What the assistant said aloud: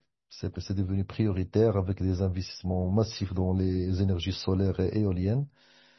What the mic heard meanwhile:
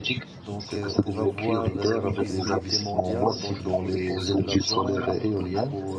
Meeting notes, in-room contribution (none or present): present